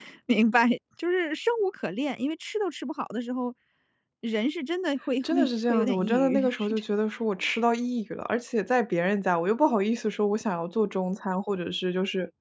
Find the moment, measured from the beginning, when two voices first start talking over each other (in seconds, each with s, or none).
5.2 s